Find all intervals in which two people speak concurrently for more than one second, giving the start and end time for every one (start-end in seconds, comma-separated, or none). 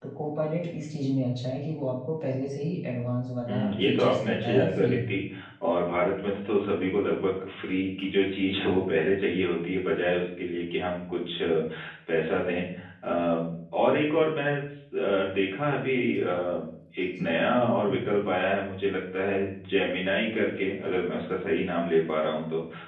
3.5-5.0